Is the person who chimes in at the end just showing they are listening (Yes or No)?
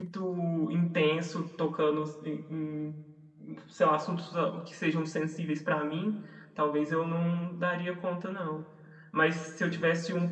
Yes